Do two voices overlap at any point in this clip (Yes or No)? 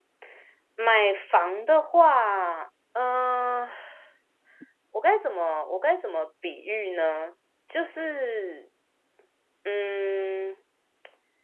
No